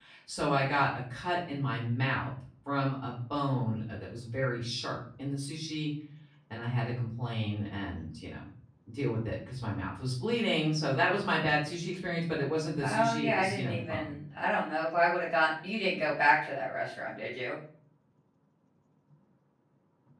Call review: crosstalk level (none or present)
present